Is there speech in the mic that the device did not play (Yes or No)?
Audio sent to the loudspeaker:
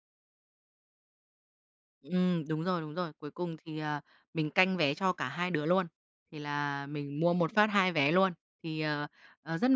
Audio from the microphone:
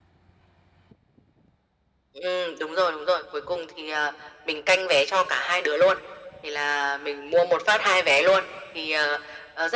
No